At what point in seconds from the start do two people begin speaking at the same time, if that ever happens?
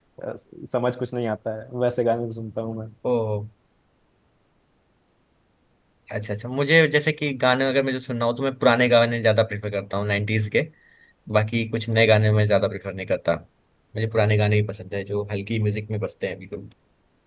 none

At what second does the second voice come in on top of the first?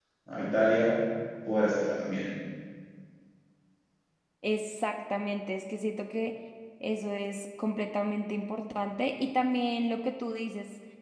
none

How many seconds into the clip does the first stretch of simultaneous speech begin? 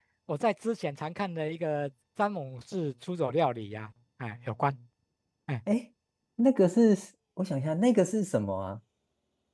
none

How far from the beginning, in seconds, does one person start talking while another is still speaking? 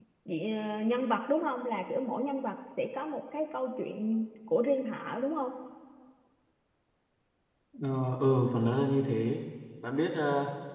none

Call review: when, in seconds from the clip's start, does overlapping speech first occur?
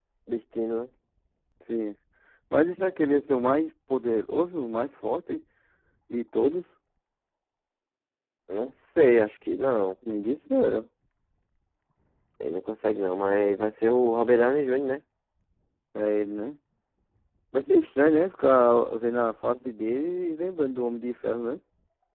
none

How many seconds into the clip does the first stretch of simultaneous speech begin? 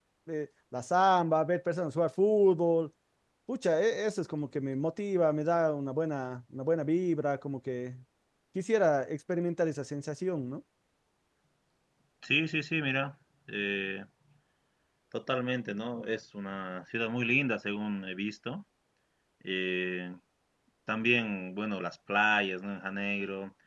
none

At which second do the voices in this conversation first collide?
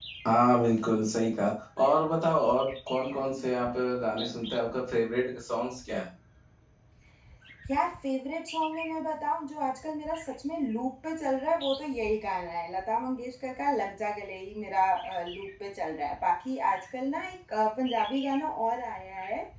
none

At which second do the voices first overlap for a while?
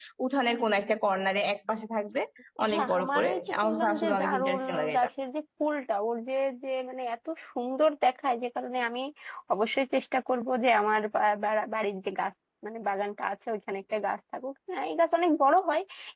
2.7 s

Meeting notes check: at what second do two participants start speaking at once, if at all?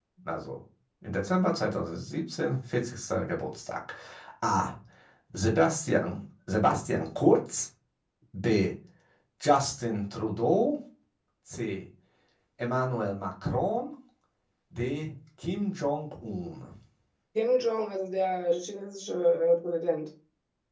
none

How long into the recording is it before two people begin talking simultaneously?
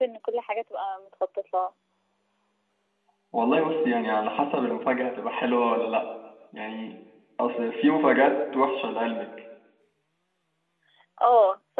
none

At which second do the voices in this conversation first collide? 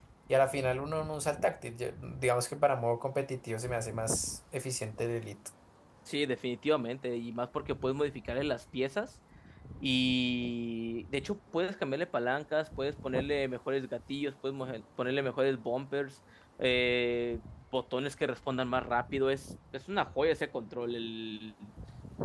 none

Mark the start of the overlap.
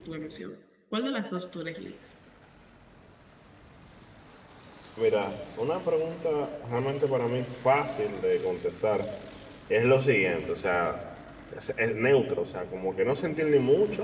none

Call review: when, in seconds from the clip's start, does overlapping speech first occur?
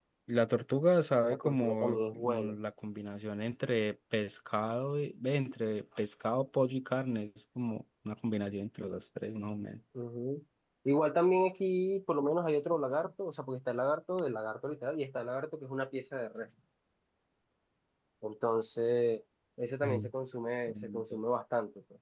1.3 s

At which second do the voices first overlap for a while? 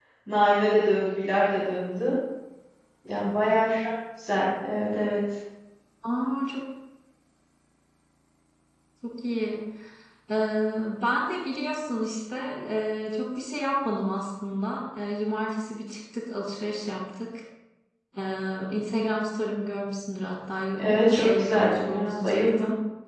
20.8 s

